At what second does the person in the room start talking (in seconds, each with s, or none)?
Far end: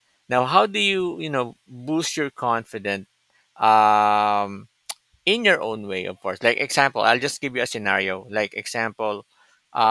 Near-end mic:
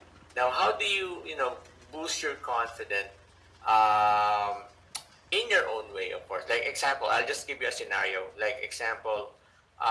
none